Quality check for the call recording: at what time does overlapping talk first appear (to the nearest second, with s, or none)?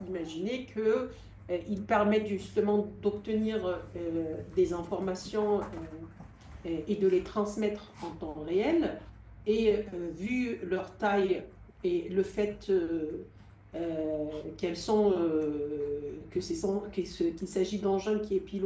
none